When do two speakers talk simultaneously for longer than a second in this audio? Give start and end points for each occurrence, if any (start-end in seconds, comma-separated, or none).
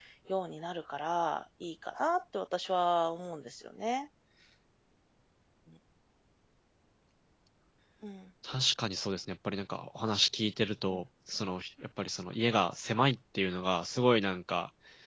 none